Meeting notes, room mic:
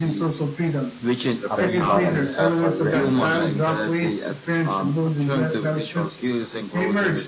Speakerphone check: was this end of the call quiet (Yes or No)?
No